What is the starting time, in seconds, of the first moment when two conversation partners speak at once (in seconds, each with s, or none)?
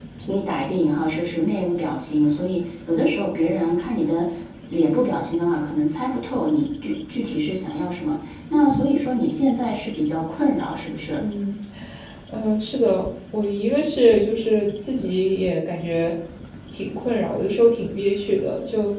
none